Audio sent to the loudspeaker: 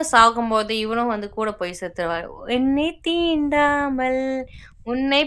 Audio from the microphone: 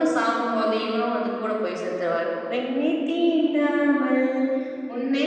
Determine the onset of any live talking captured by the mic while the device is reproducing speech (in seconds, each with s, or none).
none